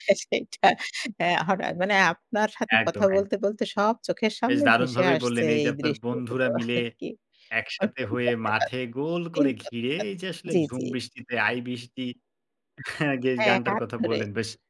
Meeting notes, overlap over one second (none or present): present